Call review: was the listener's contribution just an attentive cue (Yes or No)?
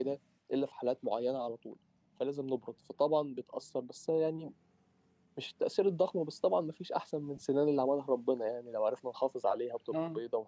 Yes